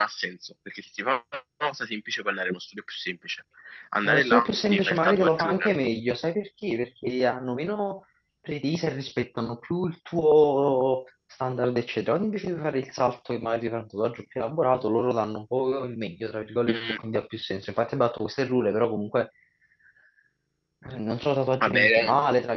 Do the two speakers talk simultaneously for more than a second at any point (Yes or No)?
Yes